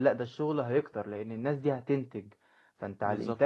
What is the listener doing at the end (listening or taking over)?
listening